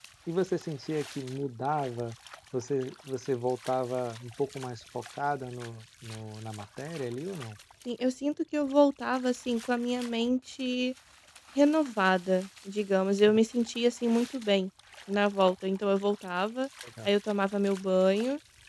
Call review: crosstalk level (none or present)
none